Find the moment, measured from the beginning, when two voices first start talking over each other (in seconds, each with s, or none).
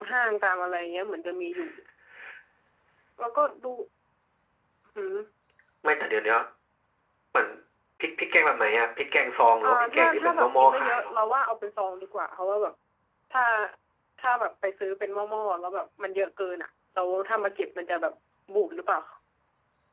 9.6 s